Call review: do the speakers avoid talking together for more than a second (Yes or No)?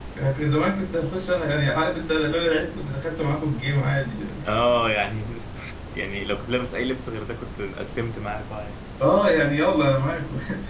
Yes